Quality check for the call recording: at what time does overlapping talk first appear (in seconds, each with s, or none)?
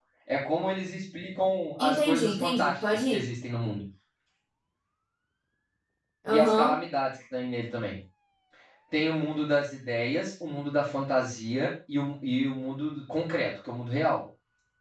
1.8 s